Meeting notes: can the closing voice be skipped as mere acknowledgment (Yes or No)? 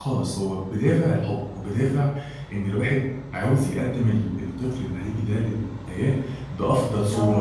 Yes